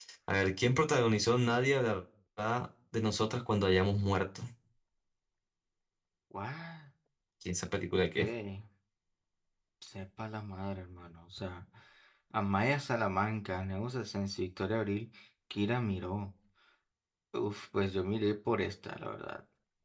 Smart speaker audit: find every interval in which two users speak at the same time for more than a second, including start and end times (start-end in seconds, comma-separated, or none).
none